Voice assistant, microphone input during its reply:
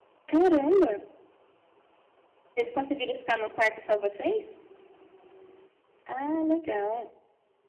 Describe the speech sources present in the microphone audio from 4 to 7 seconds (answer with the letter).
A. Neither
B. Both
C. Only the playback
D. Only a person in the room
C